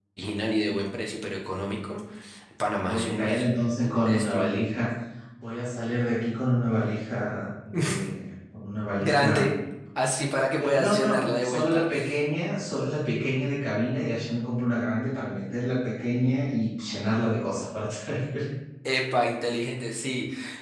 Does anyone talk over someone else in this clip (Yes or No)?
Yes